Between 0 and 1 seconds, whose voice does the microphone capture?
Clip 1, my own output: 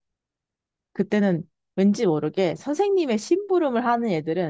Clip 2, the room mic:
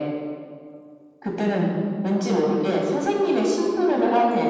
neither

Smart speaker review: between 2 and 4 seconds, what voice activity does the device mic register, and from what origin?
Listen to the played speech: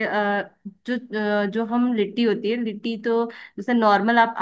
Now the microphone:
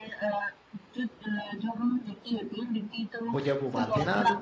both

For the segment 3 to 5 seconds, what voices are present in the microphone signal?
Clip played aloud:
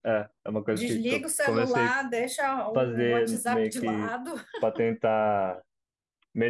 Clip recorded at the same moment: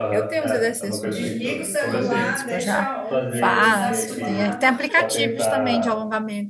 both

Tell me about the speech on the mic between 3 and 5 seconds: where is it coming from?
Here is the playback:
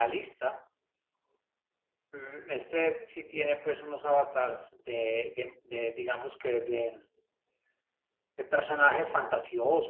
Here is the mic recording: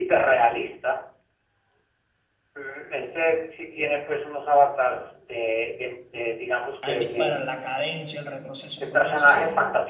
echo only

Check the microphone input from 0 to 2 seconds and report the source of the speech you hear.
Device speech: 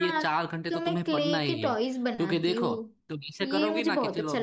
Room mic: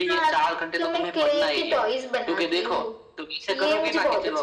echo only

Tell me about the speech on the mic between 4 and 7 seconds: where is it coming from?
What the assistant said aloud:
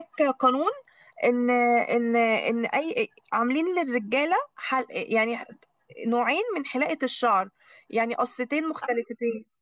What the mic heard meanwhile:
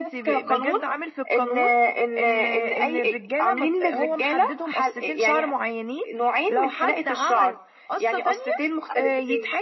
both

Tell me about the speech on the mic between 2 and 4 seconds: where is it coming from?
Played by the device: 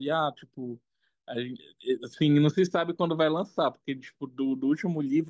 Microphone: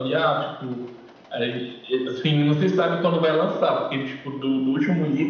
echo only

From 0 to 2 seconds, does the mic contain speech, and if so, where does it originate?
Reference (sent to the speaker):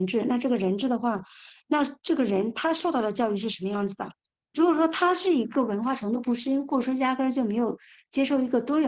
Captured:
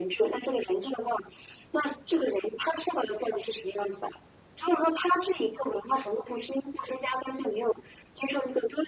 echo only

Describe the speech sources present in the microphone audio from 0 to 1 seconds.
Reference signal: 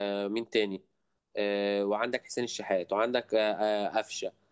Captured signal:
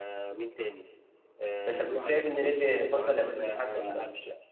echo only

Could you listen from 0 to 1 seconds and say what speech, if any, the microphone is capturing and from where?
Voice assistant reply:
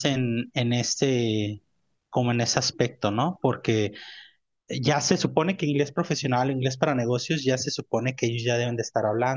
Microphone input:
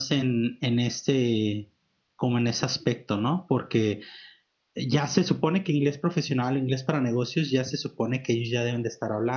echo only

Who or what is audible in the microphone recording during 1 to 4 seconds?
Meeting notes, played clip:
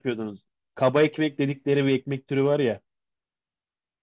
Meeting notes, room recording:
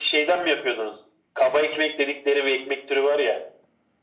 echo only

